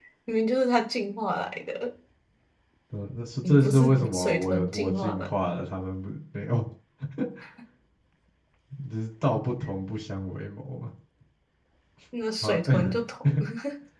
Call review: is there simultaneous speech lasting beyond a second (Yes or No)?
Yes